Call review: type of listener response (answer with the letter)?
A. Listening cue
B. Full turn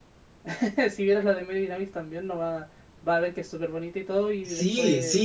B